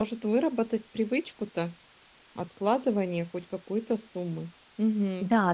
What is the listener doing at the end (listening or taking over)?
taking over